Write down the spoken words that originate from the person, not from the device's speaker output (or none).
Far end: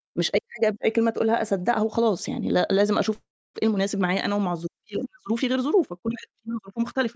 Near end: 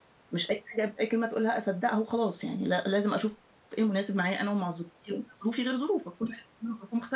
none